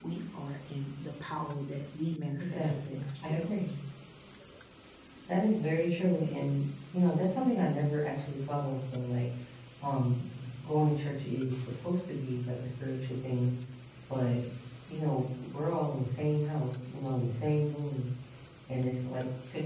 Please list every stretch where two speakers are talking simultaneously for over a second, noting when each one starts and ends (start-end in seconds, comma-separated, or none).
2.4-3.7